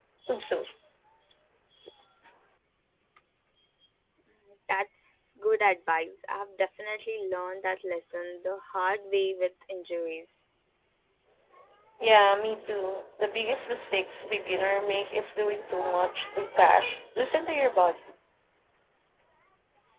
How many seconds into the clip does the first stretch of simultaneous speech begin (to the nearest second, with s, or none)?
none